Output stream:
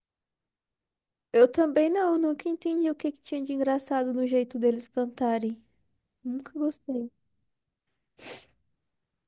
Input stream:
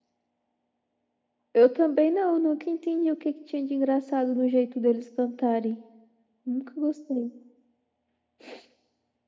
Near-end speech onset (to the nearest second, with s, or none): none